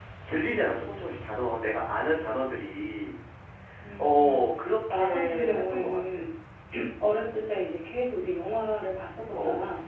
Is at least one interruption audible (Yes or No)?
Yes